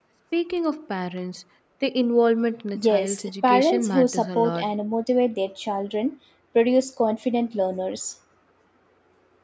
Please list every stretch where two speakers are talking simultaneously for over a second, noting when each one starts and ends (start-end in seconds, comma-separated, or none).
2.8-4.7